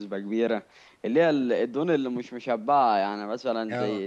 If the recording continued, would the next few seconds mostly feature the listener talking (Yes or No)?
No